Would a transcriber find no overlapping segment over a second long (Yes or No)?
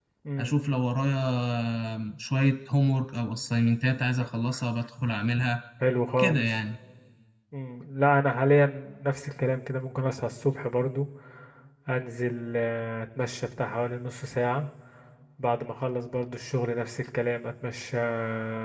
Yes